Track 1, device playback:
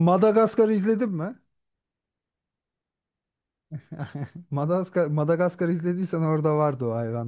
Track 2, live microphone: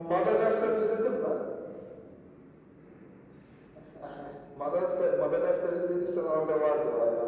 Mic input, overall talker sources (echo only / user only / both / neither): echo only